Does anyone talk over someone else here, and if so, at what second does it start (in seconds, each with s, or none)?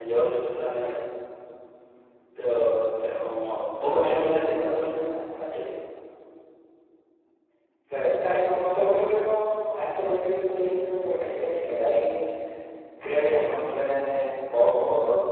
none